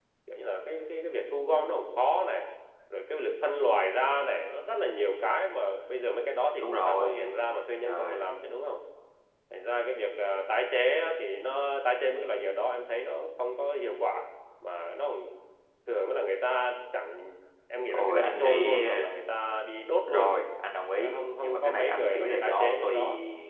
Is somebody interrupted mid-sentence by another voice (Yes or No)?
Yes